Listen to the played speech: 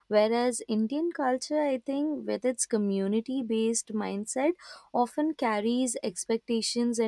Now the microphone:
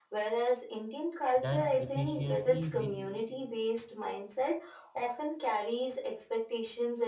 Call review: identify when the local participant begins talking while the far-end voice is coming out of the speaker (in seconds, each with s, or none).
1.4 s